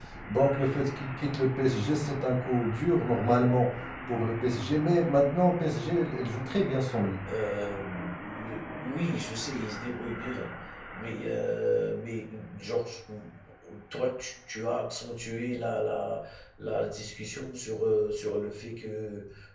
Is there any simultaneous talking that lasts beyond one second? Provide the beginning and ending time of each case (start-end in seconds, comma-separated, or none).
none